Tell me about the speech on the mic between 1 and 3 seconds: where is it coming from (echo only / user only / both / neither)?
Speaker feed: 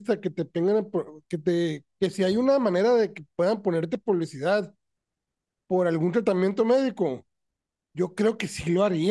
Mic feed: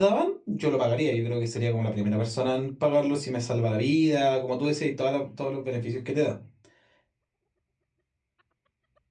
user only